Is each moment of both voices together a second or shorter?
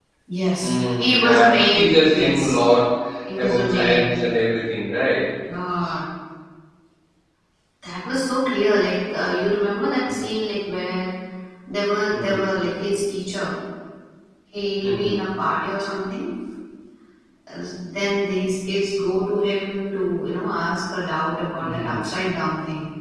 No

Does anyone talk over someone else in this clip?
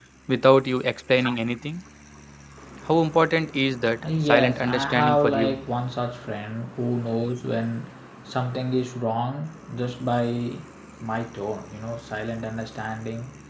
Yes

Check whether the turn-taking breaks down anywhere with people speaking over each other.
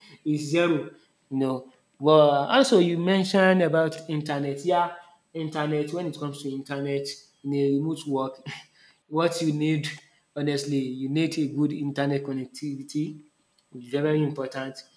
No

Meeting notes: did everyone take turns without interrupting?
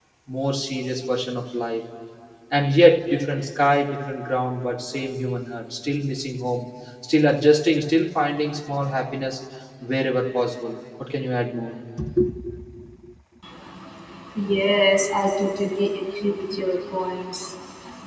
Yes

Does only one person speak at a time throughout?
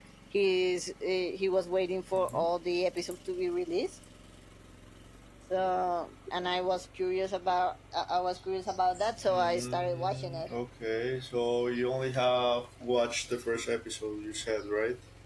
No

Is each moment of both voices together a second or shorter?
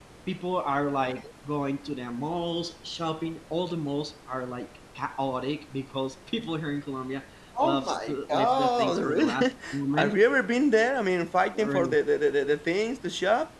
No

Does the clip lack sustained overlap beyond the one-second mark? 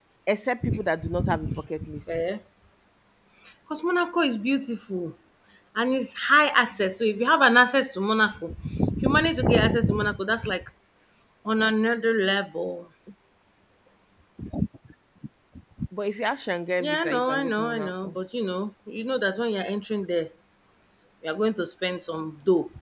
No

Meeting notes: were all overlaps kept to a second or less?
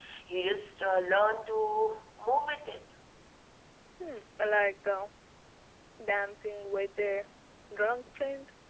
Yes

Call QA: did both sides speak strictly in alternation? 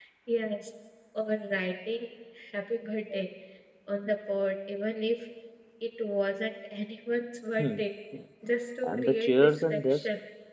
No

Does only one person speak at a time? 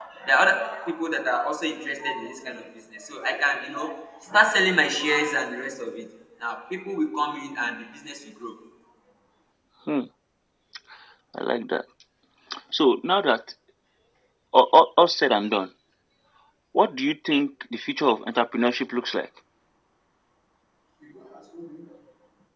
Yes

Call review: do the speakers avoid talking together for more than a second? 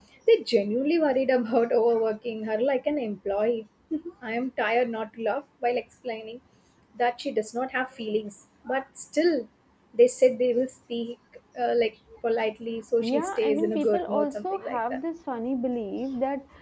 No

